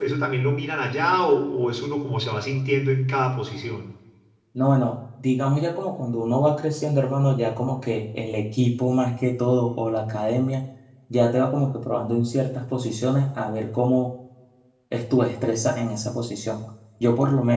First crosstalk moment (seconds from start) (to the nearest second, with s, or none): none